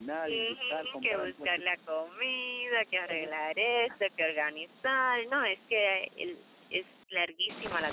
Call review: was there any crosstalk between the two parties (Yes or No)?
Yes